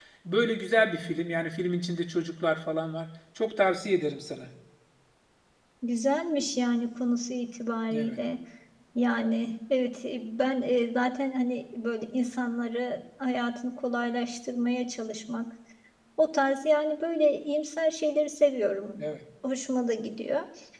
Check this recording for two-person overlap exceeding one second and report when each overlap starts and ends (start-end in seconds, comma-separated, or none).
none